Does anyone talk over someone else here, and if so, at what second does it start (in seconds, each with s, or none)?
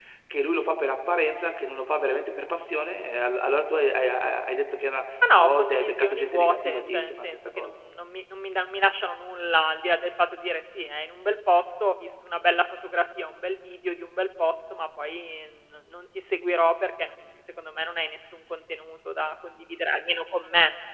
5.2 s